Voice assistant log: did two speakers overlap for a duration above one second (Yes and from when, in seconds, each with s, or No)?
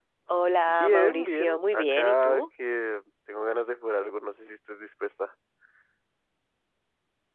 Yes, from 0.7 s